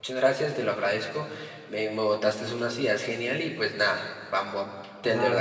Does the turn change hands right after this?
Yes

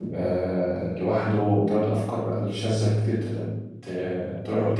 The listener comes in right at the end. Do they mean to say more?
Yes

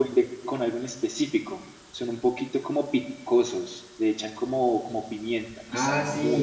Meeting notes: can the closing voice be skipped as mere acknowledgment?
No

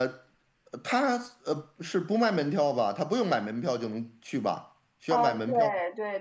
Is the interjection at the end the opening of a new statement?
Yes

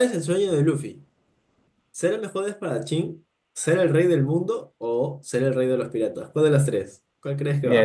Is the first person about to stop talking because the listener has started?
Yes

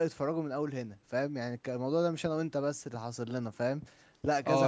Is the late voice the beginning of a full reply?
Yes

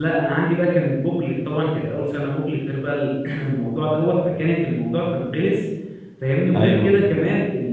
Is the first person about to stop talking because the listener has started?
No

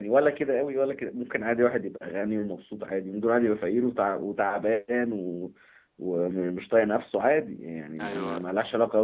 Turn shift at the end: No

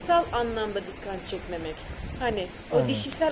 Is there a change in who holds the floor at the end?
No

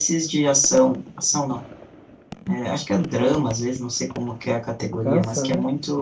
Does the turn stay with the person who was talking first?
Yes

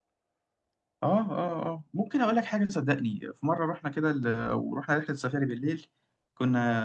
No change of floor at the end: Yes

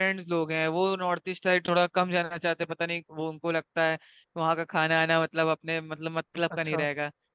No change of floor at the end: Yes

